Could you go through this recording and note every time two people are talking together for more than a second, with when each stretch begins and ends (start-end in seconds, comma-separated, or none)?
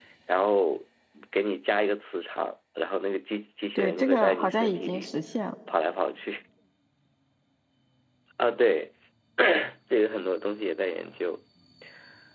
3.8-5.1